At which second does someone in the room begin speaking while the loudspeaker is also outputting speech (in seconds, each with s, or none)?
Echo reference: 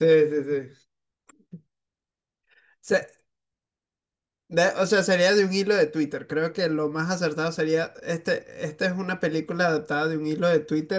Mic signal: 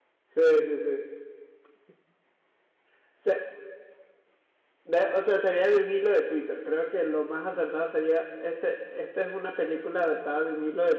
none